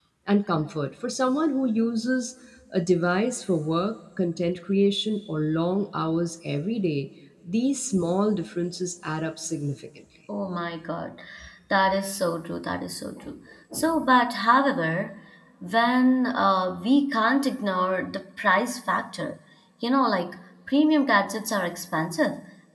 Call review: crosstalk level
none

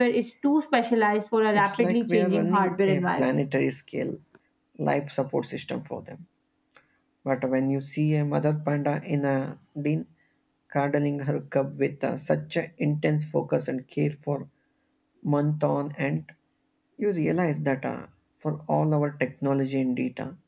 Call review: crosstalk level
present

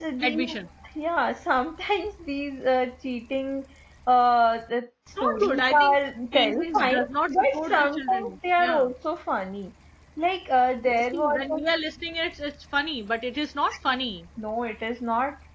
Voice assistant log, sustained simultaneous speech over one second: present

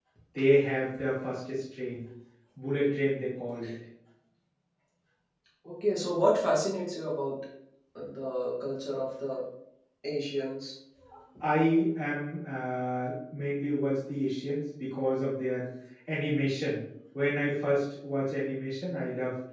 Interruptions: none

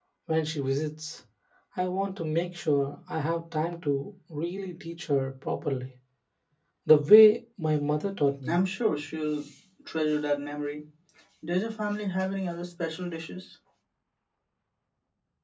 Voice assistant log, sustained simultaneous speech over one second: none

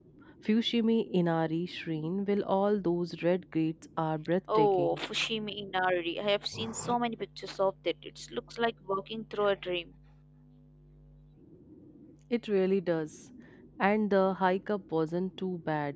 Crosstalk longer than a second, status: none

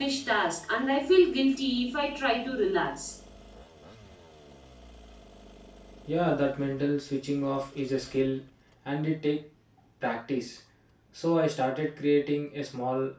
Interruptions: none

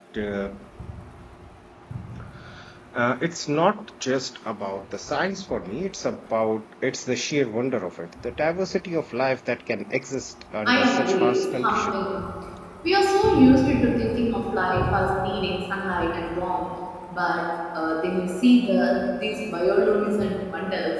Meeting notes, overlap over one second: present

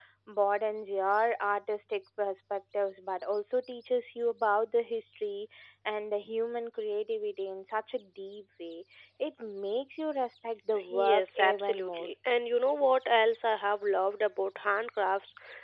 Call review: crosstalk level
present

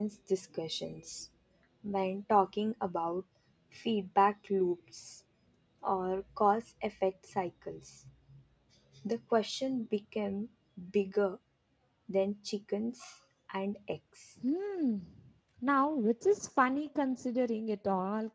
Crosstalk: none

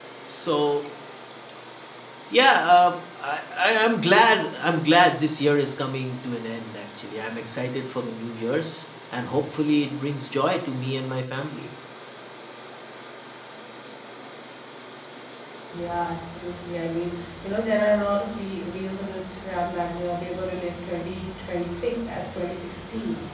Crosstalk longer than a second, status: none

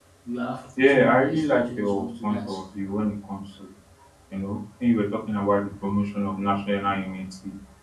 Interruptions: present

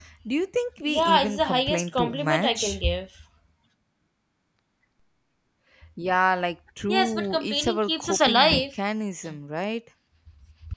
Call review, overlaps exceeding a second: present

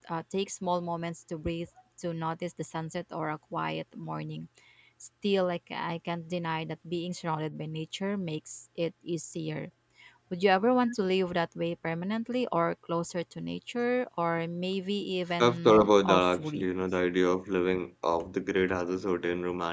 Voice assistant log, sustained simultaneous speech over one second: present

